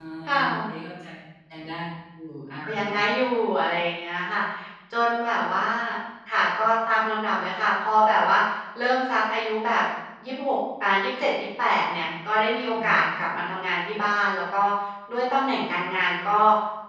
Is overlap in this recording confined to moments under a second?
Yes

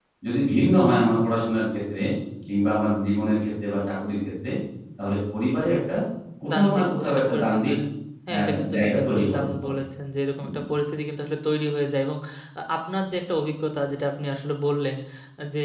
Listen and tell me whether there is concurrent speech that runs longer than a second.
Yes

